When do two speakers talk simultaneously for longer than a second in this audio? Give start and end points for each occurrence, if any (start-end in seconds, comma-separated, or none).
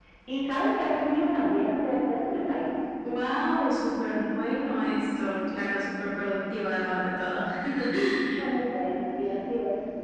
none